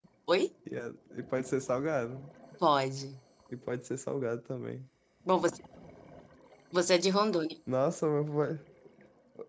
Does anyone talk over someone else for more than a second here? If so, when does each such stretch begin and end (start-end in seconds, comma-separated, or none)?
none